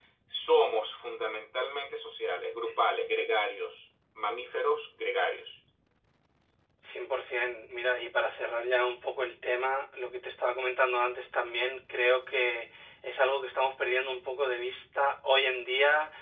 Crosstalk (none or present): none